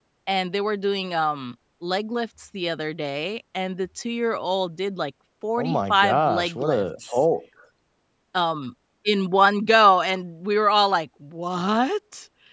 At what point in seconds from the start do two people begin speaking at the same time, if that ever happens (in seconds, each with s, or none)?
5.6 s